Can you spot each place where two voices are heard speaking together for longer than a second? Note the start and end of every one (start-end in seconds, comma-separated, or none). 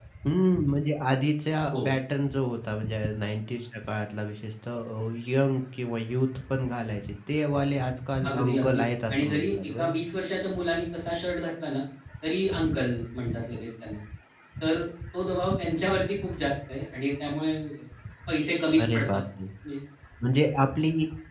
8.3-10.0